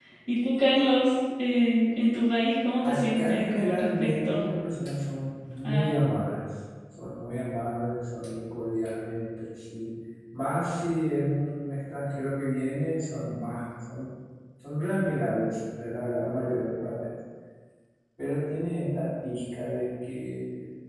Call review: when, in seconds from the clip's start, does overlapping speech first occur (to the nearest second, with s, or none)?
3 s